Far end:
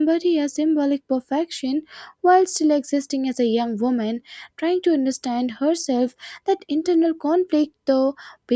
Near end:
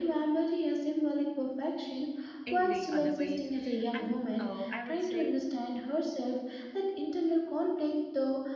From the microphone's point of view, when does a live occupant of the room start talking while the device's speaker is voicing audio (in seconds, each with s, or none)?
2.5 s